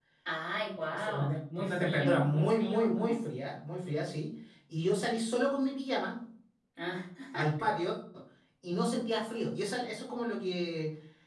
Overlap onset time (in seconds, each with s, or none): 0.8 s